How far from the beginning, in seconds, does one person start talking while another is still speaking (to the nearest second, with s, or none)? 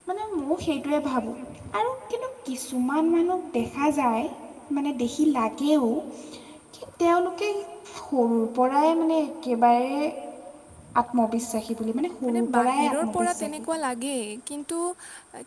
12 s